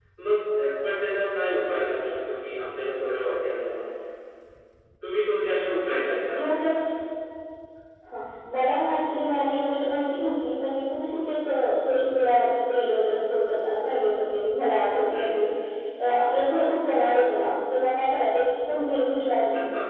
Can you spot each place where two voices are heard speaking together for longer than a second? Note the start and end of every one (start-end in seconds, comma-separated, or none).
none